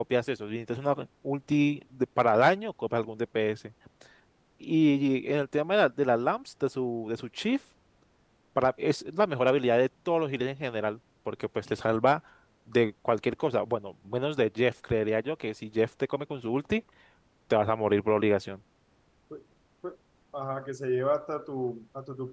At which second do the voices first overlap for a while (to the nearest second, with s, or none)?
none